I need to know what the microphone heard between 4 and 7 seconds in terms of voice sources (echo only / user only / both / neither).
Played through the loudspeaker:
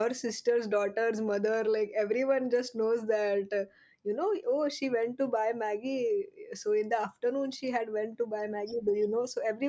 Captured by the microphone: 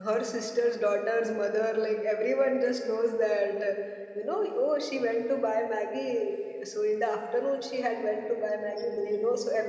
echo only